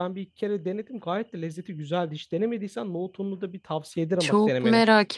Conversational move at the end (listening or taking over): taking over